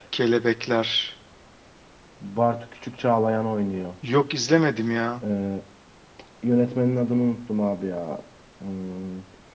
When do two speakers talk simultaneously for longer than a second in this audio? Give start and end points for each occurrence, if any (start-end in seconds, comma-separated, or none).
none